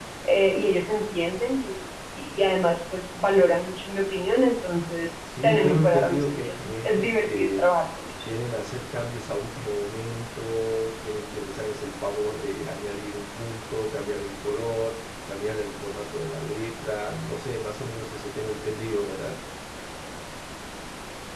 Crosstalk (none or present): present